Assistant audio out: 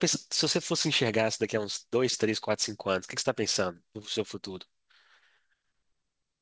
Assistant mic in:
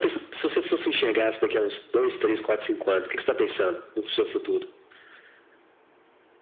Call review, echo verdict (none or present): present